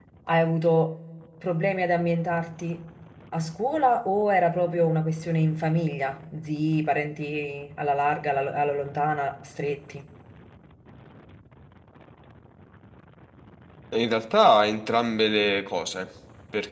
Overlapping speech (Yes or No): No